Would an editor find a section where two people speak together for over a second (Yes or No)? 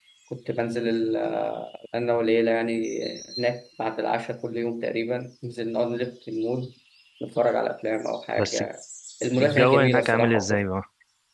Yes